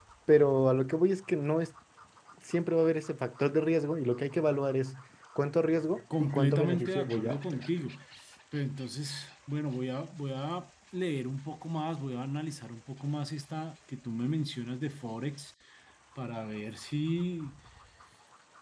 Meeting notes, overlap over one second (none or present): present